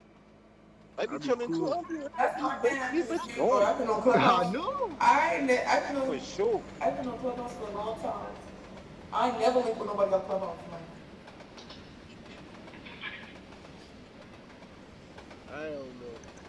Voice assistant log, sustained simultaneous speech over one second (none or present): present